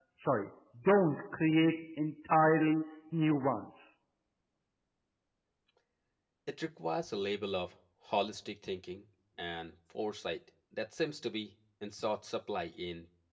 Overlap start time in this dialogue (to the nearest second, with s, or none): none